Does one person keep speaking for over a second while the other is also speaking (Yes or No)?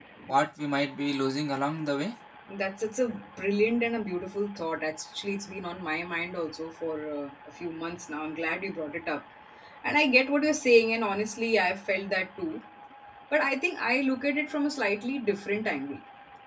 No